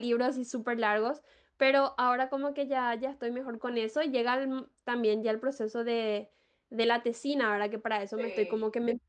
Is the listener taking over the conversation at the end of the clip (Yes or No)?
No